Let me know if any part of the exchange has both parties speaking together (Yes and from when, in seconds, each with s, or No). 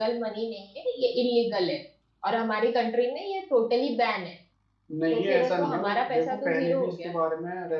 Yes, from 5.1 s